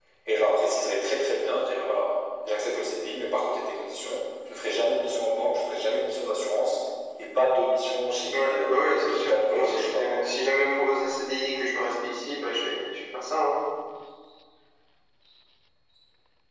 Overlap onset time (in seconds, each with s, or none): 8.3 s